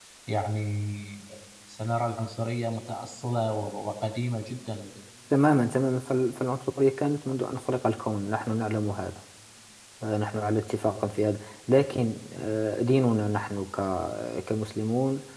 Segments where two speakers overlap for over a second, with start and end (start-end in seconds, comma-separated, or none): none